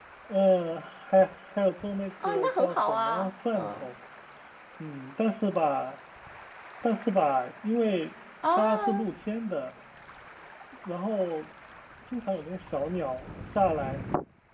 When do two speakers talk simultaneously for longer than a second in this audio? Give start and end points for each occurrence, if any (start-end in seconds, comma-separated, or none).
2.2-3.9